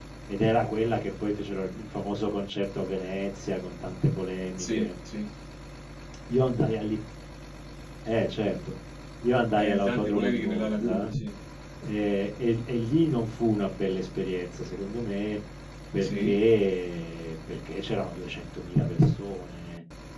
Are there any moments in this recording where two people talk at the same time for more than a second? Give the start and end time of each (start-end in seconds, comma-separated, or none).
9.6-11.1